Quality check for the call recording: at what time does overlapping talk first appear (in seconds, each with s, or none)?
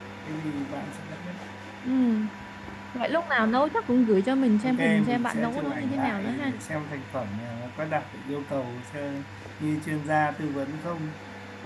4.6 s